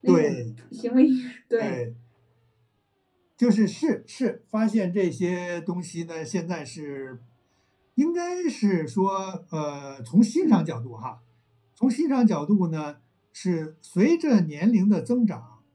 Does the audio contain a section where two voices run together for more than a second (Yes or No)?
No